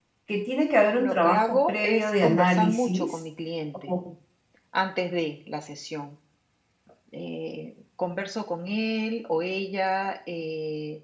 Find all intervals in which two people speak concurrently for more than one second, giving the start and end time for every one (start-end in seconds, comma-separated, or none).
0.9-3.2